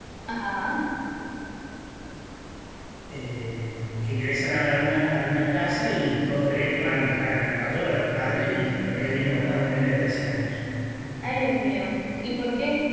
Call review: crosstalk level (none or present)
none